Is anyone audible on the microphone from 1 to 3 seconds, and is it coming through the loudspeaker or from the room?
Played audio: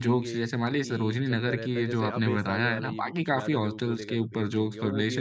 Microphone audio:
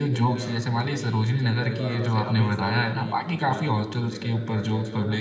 both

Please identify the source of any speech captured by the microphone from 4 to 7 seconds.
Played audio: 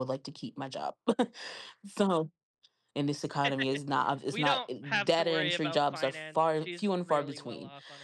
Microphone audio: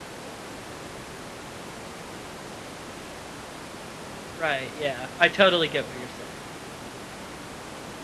user only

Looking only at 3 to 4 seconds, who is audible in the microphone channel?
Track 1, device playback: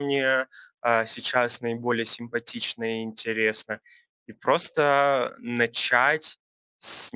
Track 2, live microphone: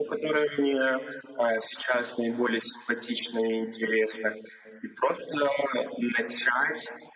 echo only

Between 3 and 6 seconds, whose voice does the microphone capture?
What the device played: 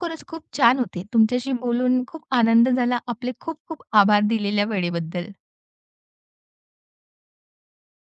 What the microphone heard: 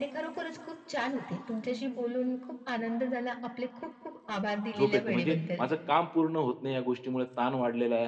both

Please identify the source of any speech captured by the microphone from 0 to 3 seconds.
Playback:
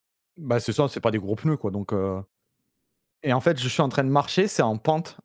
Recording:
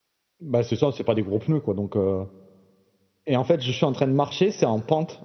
echo only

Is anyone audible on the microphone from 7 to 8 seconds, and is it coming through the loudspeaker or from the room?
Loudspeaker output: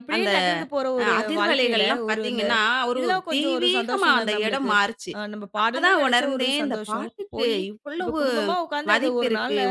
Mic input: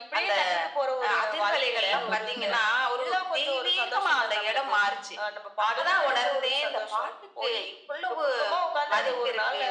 echo only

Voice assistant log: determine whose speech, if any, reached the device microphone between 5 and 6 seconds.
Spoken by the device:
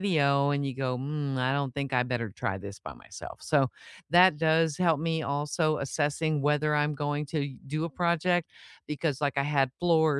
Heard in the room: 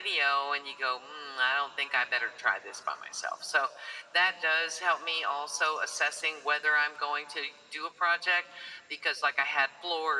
echo only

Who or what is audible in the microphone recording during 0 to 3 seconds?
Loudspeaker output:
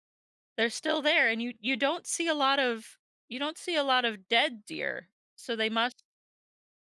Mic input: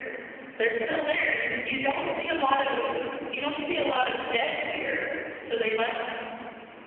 echo only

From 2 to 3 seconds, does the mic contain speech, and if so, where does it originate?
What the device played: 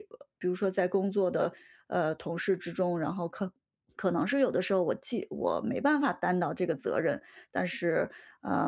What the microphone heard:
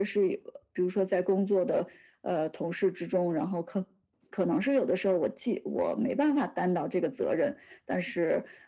echo only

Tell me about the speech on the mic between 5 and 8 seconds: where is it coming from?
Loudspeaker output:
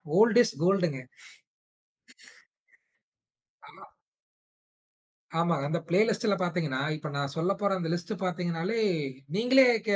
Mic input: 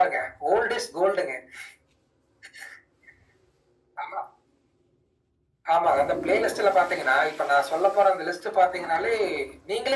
echo only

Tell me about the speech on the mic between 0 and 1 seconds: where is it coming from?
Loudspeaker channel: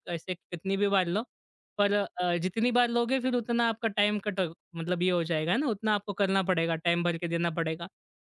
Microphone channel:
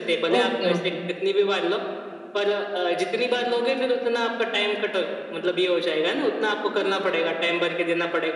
both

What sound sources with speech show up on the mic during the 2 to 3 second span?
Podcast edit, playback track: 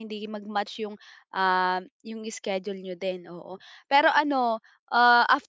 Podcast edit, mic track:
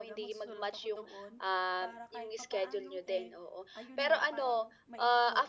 both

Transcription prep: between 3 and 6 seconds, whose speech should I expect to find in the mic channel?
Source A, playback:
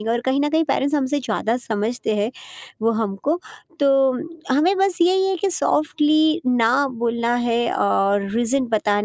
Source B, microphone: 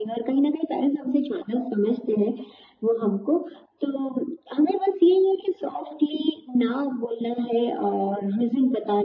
echo only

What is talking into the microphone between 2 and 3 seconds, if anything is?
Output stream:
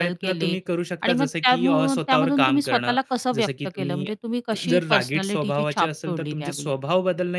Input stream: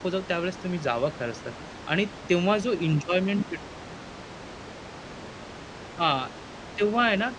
user only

